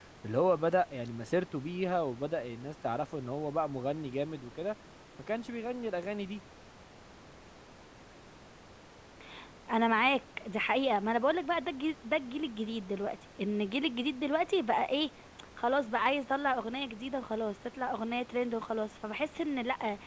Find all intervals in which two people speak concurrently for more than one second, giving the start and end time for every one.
none

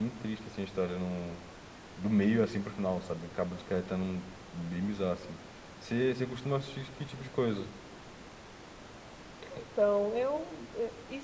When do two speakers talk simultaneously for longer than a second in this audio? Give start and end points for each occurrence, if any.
none

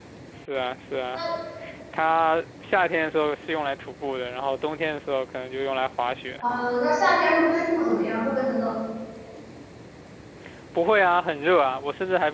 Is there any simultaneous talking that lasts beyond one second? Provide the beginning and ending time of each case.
none

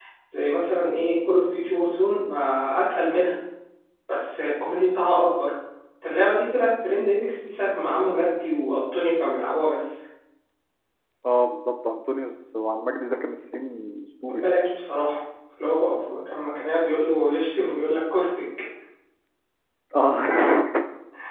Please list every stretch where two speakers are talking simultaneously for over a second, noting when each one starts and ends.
none

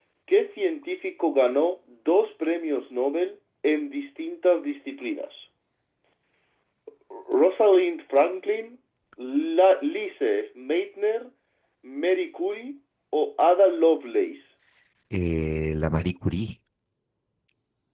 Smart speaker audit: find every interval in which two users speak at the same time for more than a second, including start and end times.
none

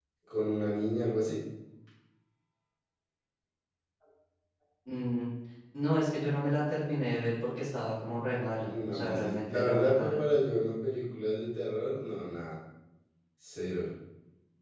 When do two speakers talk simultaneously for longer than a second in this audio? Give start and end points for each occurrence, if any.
8.7-10.2

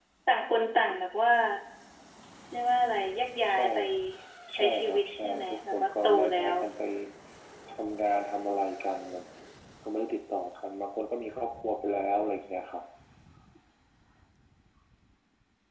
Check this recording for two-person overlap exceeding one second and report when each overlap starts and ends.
4.5-6.5

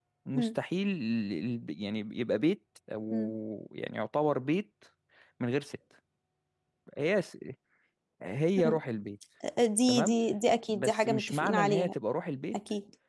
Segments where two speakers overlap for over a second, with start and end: 10.7-11.9

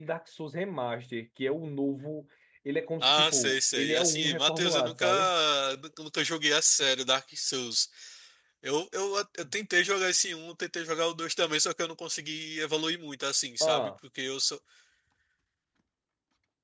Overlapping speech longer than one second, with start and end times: 3.0-5.1

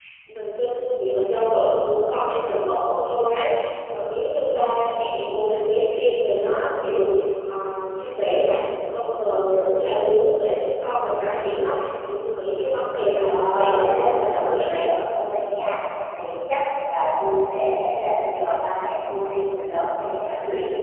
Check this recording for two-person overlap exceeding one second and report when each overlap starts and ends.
13.2-14.8

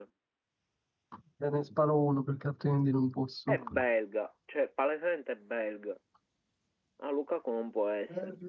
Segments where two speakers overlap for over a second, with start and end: none

